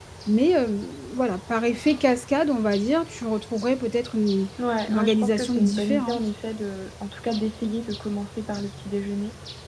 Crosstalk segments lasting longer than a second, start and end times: 4.9-6.2

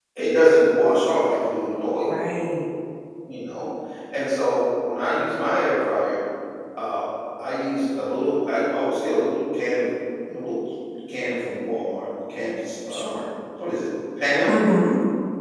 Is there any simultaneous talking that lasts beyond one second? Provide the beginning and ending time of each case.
none

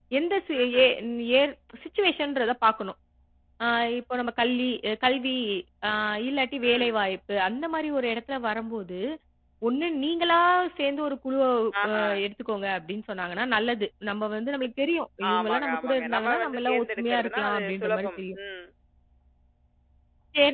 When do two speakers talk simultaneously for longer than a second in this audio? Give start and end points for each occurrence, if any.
15.3-18.4

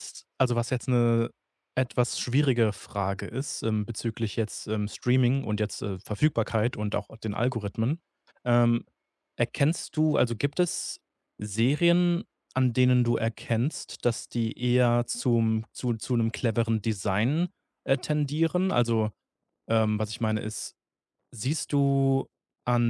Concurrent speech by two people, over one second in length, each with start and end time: none

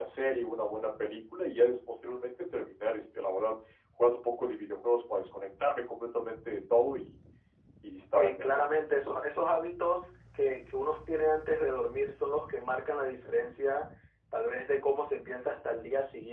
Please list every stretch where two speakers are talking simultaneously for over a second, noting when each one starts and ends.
none

